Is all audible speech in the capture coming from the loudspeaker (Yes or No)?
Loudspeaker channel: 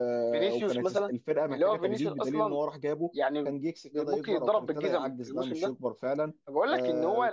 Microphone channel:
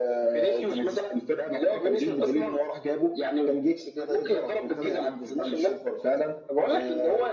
Yes